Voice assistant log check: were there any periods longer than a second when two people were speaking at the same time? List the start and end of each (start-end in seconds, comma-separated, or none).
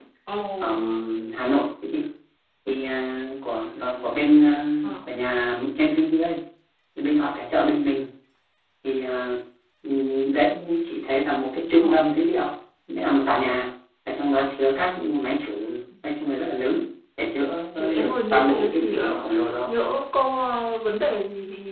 18.0-19.2